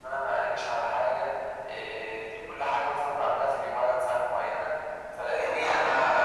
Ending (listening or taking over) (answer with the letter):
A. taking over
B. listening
A